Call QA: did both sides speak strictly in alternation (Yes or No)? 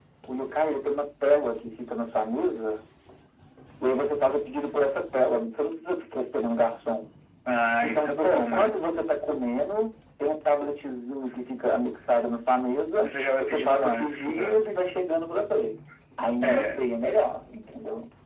No